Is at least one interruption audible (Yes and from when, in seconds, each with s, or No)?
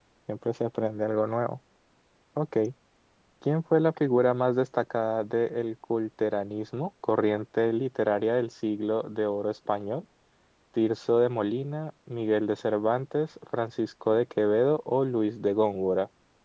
No